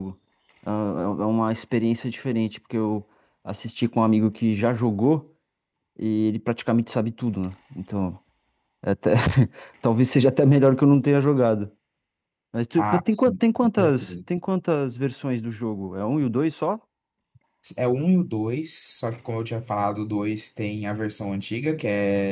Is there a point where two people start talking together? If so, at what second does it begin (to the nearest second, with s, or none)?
13 s